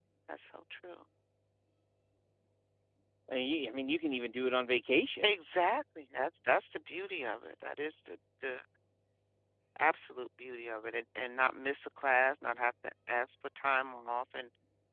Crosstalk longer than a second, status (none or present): none